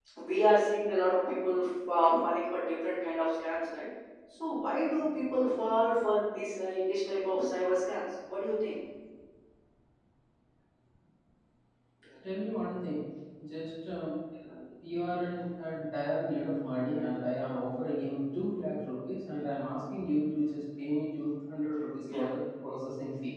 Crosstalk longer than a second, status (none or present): none